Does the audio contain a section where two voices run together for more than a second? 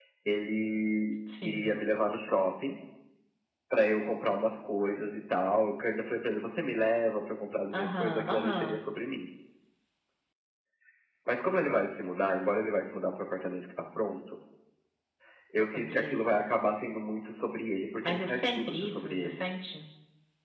Yes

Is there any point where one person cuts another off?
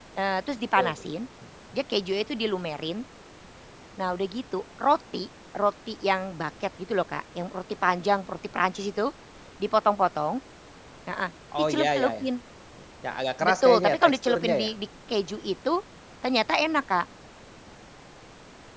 Yes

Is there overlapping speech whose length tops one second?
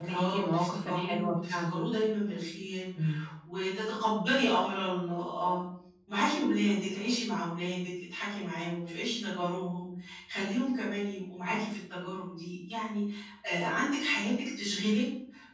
Yes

